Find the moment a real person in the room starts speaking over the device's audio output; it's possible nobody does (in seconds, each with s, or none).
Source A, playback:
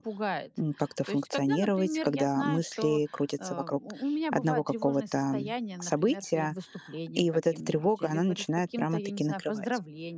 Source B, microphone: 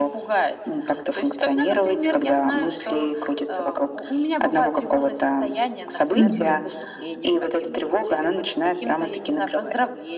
6.2 s